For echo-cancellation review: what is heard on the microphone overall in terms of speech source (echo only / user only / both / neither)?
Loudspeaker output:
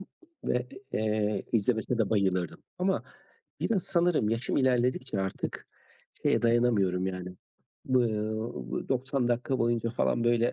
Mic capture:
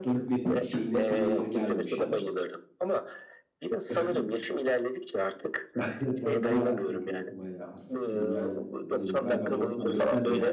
both